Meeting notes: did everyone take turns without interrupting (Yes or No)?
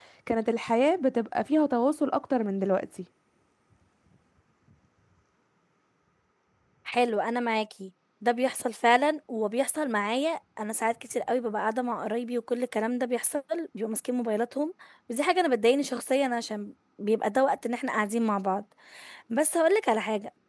Yes